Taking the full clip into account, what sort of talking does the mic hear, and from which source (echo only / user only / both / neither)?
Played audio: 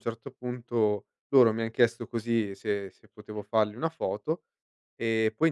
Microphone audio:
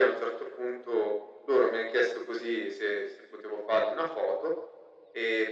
echo only